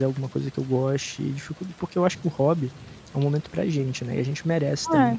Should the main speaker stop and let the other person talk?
Yes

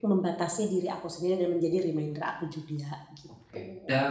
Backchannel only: No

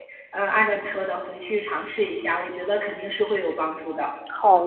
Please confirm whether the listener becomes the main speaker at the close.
Yes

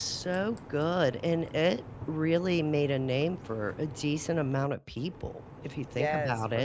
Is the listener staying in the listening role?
No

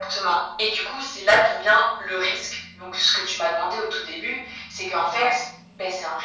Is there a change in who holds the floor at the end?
No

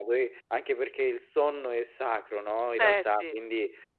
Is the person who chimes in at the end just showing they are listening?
Yes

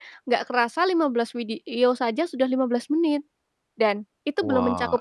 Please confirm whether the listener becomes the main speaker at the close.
No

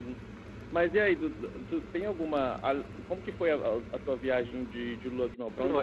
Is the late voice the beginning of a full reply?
Yes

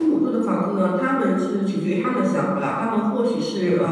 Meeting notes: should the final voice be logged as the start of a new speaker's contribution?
No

